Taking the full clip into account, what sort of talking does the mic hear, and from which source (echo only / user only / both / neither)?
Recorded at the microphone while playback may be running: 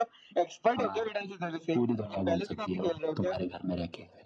echo only